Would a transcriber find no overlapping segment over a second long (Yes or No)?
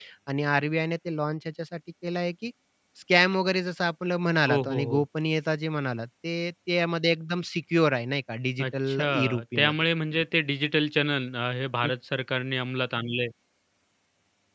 No